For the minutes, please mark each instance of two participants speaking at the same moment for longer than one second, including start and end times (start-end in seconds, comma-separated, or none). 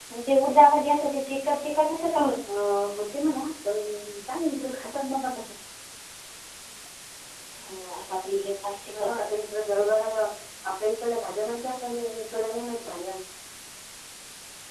none